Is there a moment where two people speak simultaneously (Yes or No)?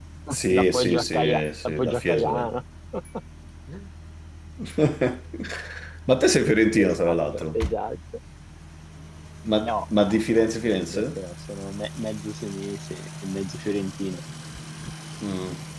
Yes